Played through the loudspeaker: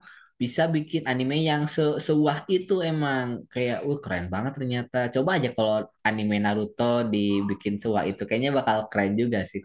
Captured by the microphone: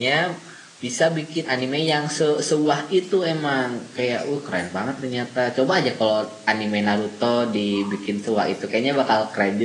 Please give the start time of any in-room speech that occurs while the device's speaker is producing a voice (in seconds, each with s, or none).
none